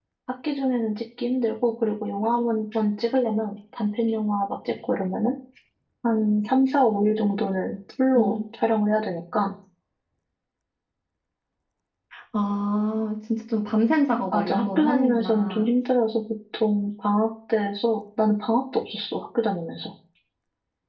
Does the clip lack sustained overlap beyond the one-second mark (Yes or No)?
No